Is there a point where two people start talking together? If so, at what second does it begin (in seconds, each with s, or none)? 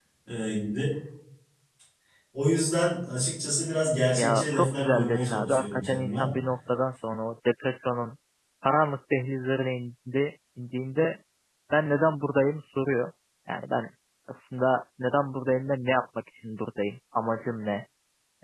4.2 s